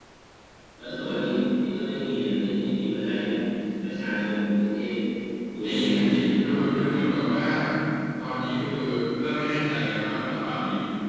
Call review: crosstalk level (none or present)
present